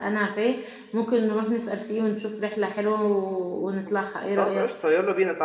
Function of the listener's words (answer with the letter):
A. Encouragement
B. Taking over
B